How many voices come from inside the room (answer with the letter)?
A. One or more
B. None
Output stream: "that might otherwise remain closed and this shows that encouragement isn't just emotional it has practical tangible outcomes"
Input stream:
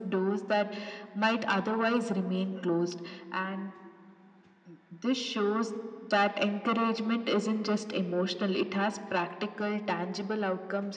B